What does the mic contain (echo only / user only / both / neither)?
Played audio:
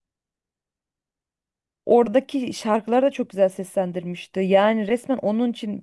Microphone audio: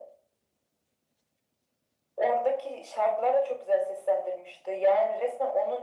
echo only